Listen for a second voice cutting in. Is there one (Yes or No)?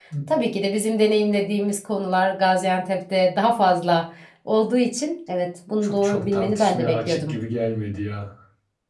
Yes